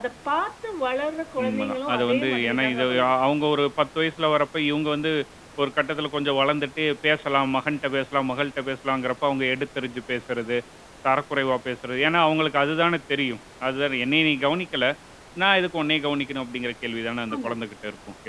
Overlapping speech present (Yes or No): Yes